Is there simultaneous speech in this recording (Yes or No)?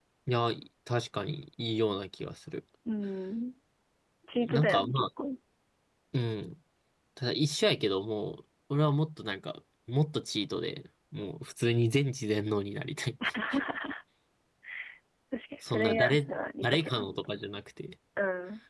Yes